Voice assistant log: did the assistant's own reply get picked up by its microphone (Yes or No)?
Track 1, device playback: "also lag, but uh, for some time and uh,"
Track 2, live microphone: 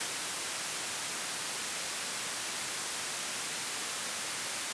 No